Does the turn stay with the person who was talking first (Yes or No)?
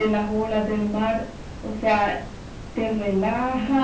Yes